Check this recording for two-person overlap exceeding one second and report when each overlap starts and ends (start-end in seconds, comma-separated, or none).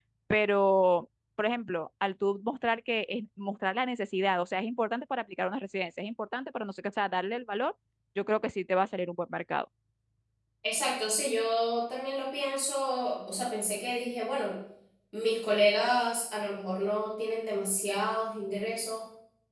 none